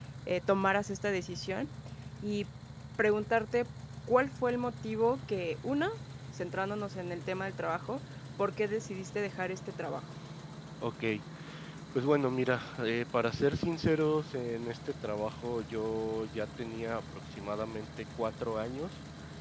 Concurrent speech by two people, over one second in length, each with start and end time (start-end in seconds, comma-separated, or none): none